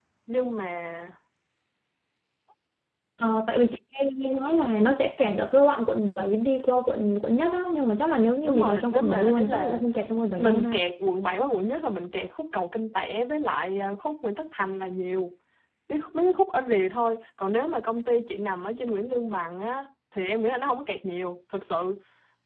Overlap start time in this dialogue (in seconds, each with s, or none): 8.4 s